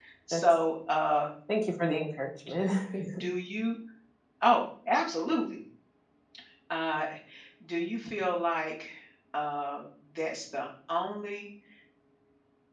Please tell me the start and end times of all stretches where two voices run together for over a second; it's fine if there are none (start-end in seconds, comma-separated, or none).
none